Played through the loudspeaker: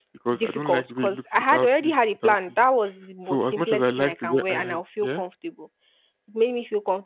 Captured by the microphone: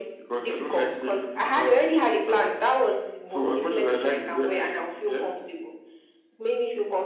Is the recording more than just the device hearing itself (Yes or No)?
No